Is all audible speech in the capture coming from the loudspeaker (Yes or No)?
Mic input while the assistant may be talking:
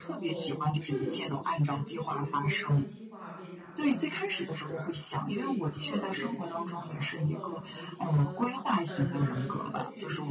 No